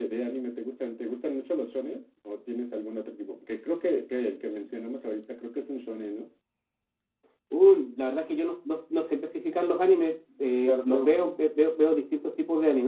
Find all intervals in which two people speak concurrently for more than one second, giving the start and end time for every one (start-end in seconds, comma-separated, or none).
none